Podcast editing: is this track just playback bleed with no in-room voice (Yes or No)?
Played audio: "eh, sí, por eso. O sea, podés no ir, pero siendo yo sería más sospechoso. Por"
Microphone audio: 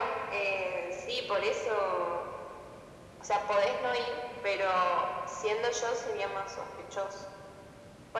Yes